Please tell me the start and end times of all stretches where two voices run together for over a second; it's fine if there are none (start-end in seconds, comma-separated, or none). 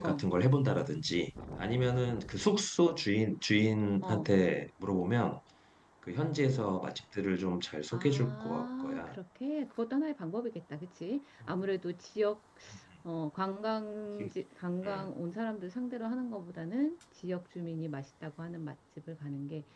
7.9-9.2